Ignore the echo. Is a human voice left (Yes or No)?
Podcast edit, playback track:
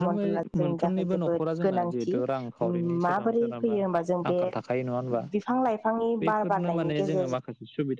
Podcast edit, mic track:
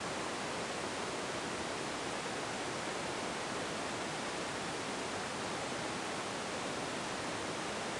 No